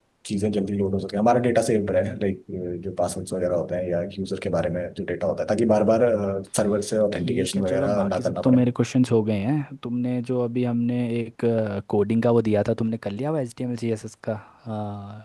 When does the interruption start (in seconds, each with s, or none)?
7.2 s